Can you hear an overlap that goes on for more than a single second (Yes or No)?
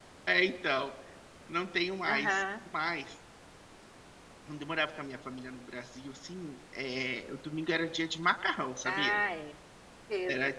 No